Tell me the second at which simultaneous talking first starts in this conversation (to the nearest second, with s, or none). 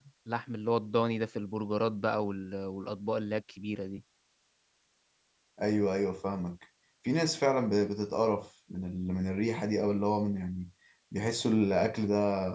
none